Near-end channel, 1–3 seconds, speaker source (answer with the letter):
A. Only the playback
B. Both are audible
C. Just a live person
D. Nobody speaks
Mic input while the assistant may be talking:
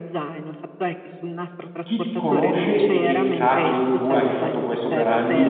B